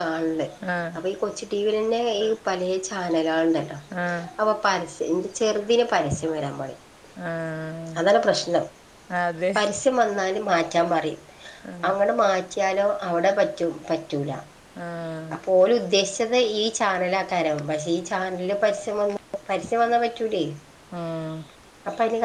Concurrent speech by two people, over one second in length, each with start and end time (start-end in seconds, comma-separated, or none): none